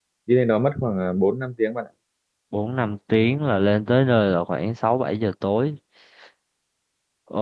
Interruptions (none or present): none